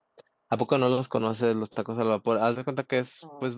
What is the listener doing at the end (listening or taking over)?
listening